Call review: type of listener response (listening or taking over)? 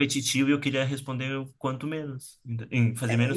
taking over